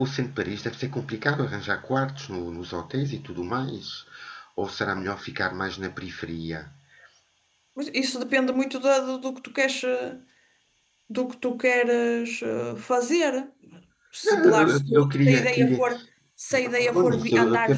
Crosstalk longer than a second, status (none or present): present